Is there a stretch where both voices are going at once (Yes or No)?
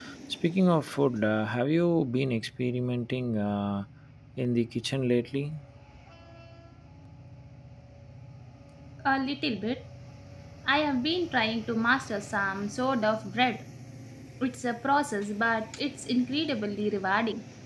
No